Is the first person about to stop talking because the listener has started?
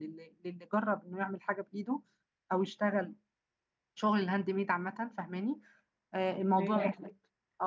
No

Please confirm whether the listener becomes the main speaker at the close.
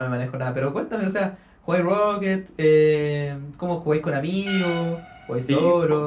Yes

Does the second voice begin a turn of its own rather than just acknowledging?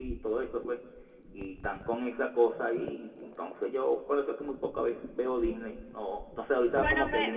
Yes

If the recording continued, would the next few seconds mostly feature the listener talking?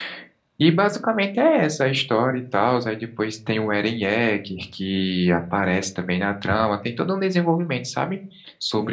Yes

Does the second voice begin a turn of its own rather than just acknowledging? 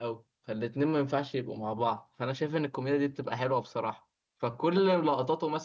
No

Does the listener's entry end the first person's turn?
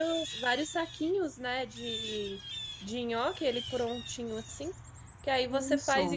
No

